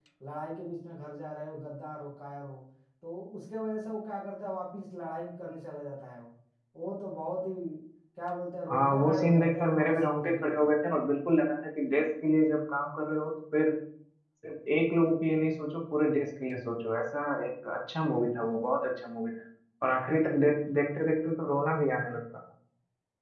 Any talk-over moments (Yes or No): Yes